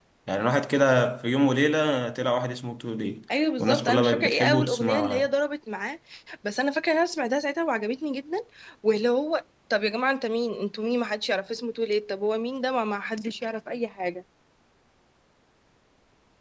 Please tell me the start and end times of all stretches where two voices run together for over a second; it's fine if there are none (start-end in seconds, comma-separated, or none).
3.6-5.3